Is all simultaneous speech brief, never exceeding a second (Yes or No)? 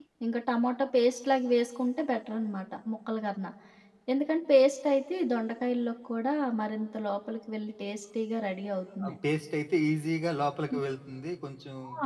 Yes